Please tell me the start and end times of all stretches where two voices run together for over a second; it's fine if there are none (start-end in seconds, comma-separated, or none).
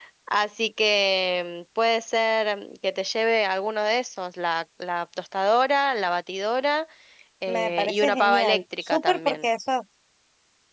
7.5-9.4